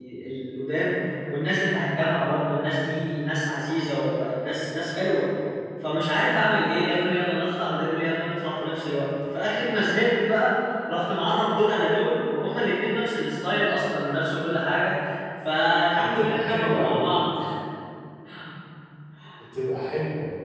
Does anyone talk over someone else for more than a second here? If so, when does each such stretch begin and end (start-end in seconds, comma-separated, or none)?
16.0-17.3